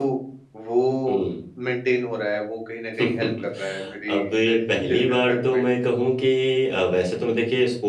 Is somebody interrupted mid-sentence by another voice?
Yes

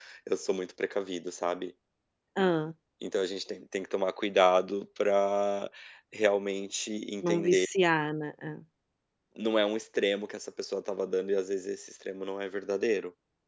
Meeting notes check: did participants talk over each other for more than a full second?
No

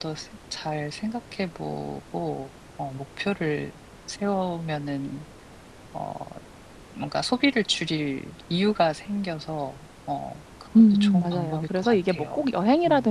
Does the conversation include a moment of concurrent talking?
Yes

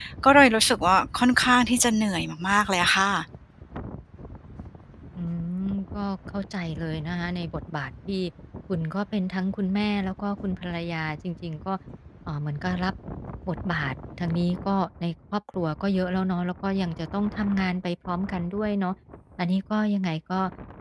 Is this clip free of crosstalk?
Yes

